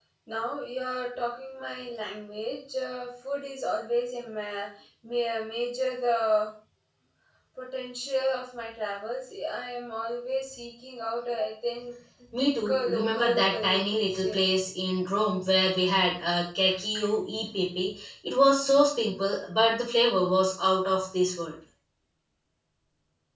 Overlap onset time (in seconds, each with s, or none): 12.3 s